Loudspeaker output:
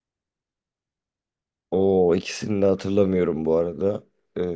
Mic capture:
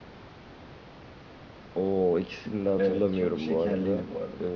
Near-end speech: present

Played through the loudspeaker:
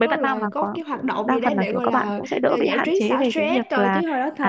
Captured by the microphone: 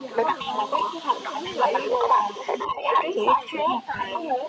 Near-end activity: present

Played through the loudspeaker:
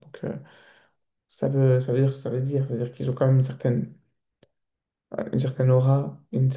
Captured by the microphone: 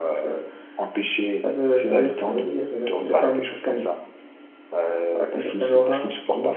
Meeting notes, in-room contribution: present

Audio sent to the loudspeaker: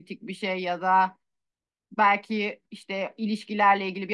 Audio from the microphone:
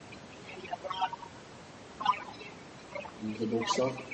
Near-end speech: present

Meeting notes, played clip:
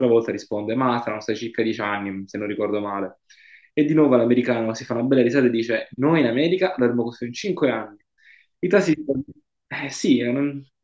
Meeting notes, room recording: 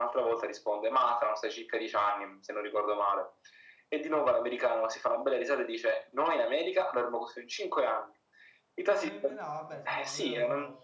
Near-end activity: present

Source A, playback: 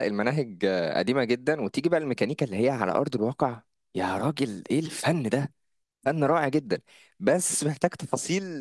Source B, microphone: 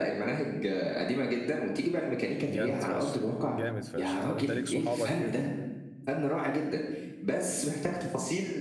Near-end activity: present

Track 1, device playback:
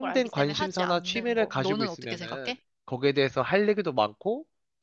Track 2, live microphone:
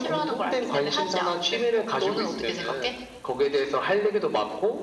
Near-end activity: none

